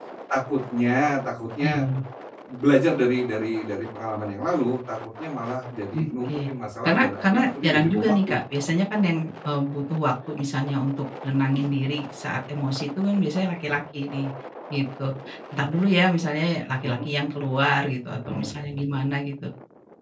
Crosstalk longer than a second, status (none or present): present